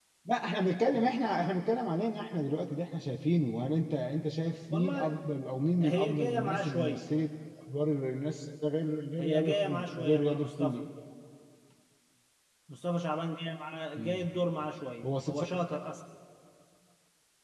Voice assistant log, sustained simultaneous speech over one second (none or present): present